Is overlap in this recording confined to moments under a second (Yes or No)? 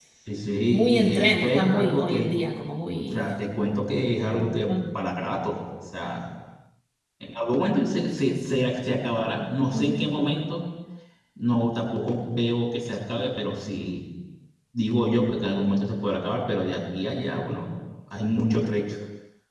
No